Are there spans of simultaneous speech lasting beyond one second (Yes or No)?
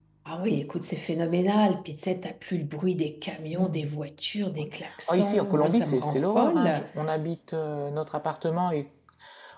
Yes